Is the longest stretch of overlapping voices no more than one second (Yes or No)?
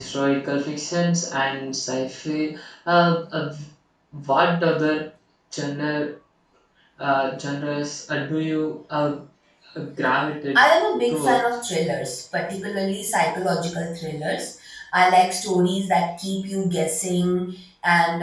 Yes